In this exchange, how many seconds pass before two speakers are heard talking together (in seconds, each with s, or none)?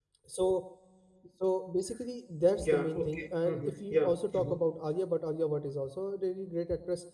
2.6 s